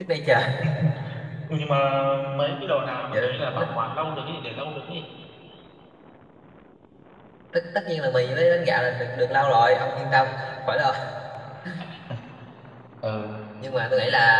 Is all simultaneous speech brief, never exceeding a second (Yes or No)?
Yes